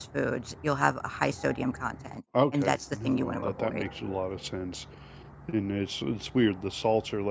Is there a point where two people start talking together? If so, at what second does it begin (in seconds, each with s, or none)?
2.3 s